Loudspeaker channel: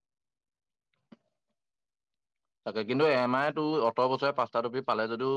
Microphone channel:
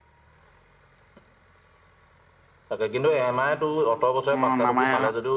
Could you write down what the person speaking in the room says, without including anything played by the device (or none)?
অ', নামাই আৰু